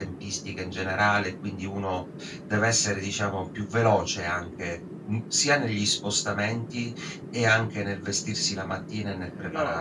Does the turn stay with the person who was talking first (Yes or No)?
No